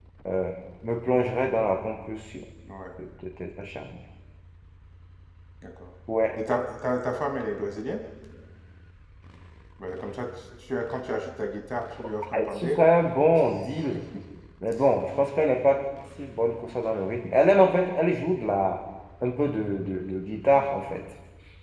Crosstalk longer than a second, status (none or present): none